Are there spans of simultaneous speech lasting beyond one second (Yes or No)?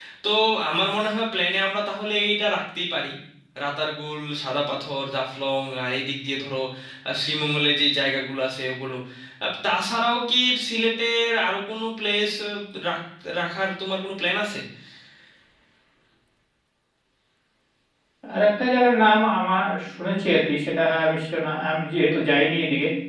No